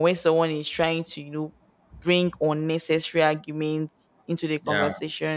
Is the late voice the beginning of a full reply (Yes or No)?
No